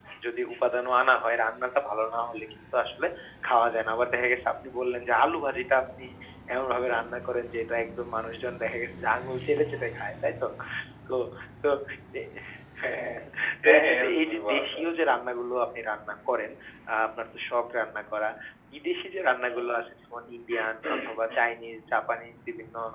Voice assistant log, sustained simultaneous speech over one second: present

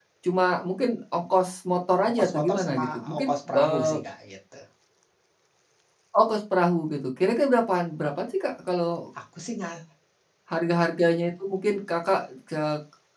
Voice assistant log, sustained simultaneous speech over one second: present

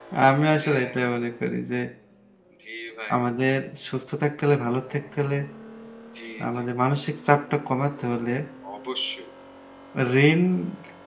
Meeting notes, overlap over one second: none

